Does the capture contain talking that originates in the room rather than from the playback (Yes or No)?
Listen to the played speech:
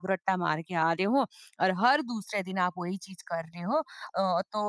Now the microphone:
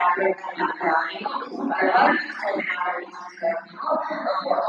No